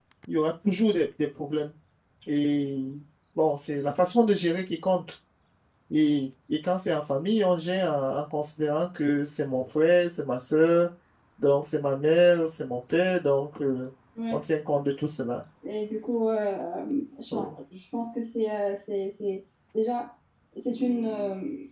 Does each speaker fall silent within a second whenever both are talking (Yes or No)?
Yes